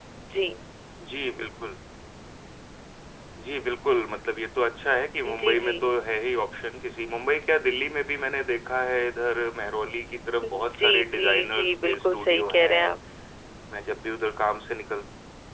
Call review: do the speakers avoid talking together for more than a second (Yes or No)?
No